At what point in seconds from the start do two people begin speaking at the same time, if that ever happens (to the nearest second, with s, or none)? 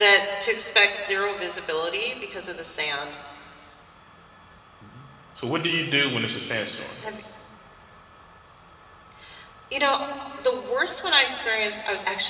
none